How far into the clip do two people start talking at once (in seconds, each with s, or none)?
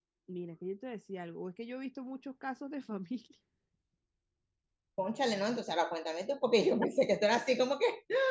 none